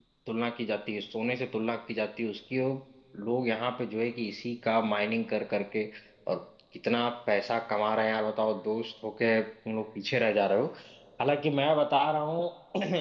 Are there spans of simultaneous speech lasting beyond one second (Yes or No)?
No